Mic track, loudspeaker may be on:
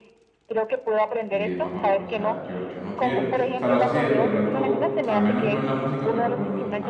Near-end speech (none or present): present